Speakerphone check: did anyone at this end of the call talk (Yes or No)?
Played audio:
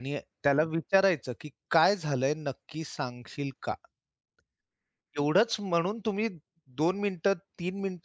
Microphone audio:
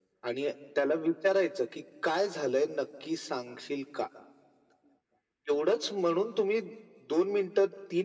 No